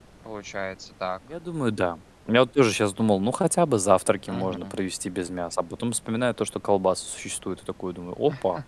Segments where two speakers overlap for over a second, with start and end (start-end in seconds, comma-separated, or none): none